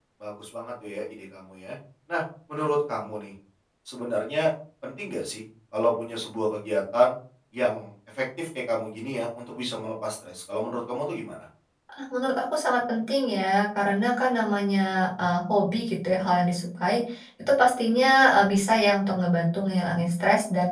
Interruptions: none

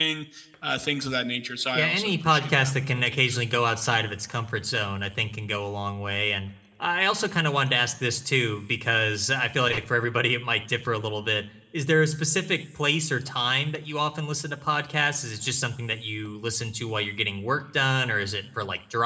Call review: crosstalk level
present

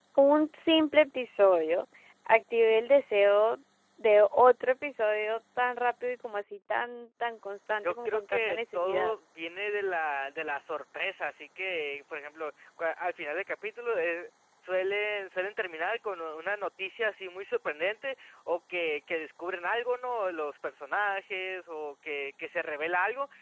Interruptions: present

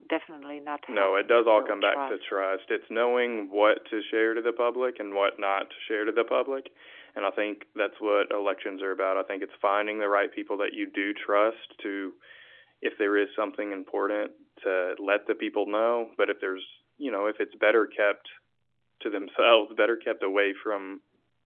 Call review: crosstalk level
present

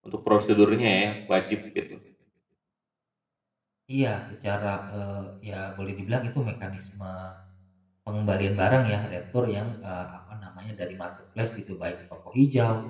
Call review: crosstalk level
none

